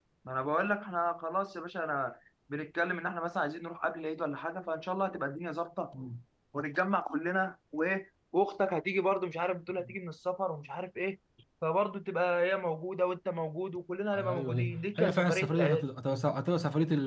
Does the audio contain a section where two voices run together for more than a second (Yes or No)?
Yes